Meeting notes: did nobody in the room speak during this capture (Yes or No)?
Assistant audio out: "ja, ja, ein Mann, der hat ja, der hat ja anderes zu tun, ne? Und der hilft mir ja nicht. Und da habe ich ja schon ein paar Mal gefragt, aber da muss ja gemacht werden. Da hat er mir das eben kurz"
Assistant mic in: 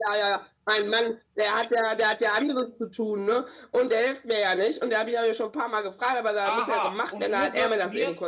No